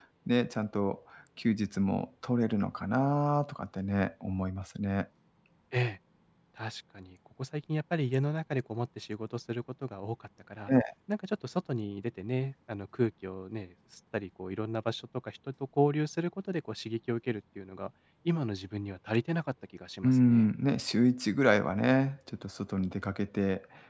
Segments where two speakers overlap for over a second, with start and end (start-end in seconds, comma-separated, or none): none